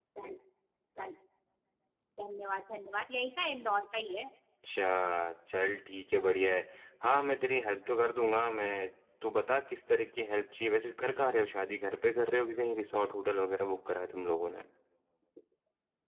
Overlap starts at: none

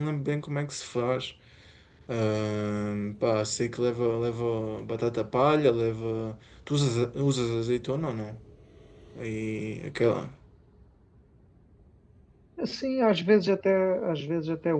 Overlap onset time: none

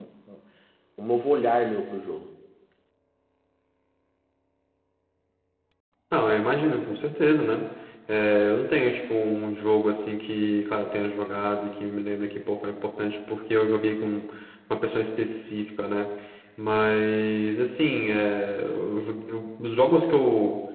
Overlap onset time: none

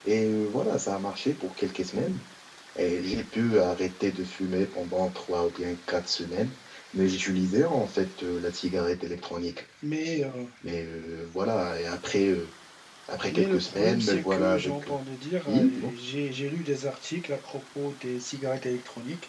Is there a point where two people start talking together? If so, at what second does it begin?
13 s

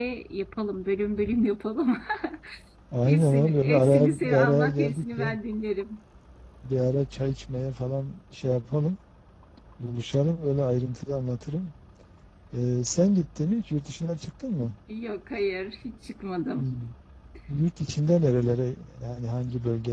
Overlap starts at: 3 s

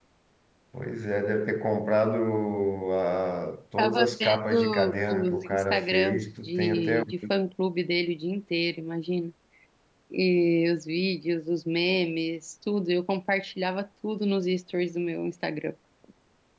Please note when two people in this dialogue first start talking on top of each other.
4 s

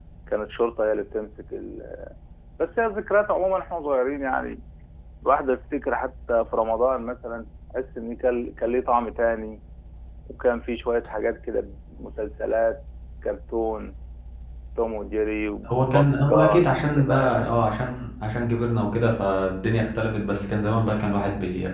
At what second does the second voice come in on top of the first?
16 s

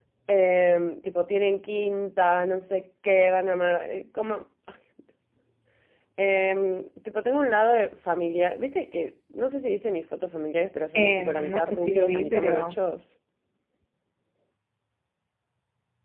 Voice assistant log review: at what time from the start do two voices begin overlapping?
11 s

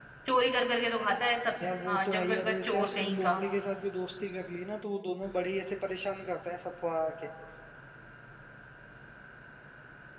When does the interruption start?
2 s

